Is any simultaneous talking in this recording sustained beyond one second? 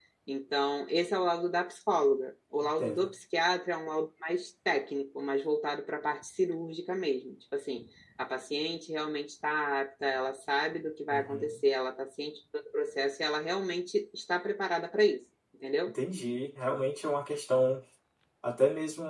No

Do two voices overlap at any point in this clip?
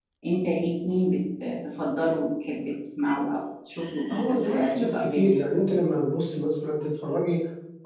Yes, from 4.1 s

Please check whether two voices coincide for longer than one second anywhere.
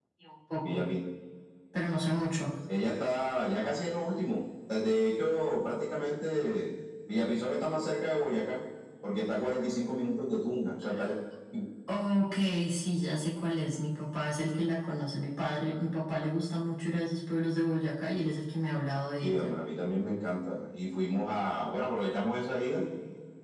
No

